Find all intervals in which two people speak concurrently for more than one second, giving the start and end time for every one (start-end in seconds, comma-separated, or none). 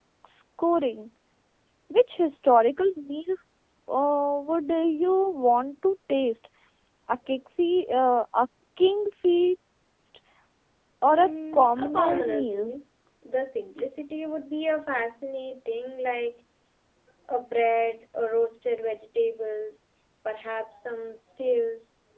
11.1-12.7